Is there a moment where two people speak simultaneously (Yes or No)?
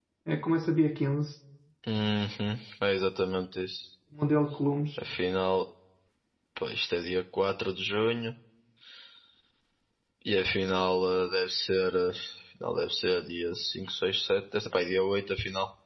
No